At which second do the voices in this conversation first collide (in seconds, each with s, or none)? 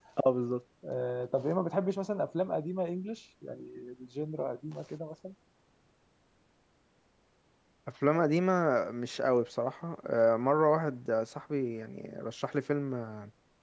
none